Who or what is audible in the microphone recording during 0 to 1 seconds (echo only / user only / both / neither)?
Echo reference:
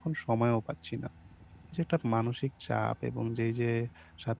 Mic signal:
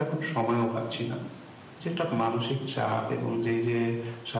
echo only